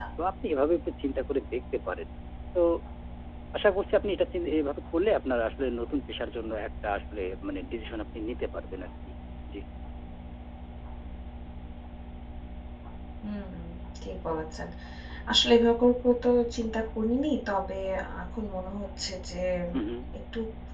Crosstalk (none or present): none